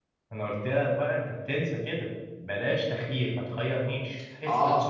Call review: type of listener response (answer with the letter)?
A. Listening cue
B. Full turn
B